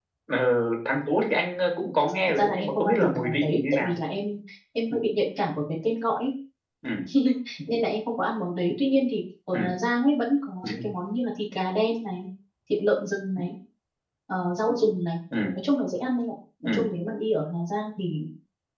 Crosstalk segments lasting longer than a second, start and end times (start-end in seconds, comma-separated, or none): 2.3-3.9